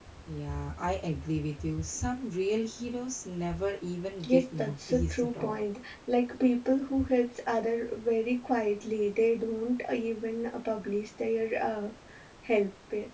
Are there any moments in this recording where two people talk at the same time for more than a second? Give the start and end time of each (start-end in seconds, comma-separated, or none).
4.2-5.6